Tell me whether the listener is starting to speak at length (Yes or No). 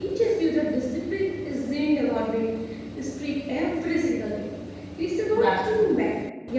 No